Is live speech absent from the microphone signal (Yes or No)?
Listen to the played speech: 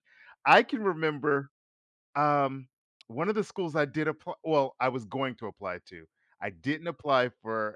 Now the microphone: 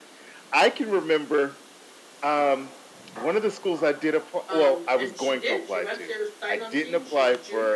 No